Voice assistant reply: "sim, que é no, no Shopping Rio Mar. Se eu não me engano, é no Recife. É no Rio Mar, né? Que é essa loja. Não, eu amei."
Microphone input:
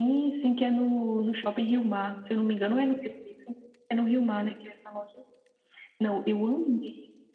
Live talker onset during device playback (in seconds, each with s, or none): none